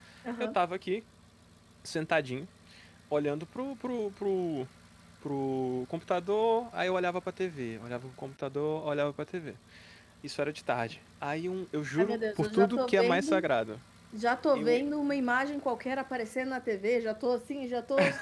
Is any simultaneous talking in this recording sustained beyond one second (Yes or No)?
Yes